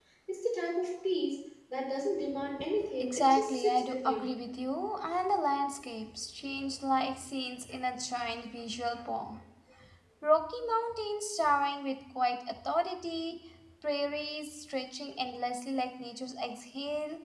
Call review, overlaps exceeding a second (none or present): present